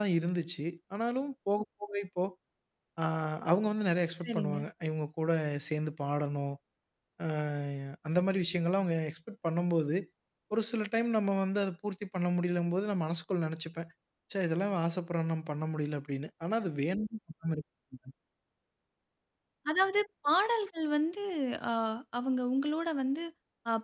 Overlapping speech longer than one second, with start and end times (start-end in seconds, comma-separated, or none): none